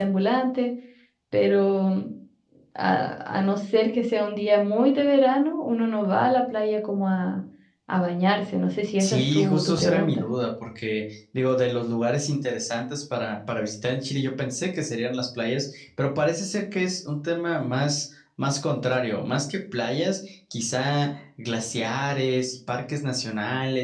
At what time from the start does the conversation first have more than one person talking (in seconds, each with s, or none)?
9.0 s